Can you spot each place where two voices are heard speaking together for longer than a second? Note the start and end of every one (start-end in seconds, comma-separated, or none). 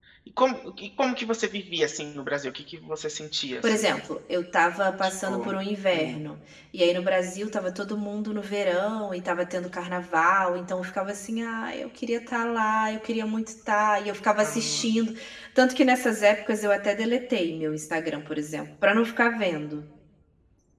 none